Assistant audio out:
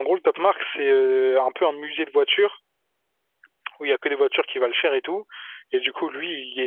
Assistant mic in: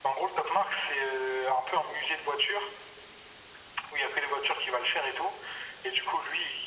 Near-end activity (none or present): none